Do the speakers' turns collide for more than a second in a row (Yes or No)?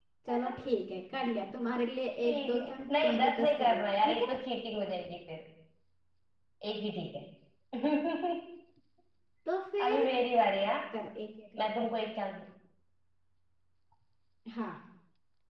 Yes